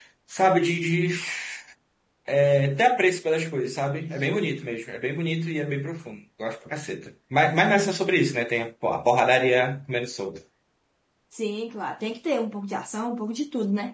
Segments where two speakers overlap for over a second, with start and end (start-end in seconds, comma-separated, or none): none